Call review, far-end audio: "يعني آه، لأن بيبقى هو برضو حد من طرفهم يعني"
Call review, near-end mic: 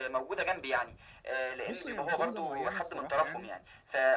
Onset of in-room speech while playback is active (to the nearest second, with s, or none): 2 s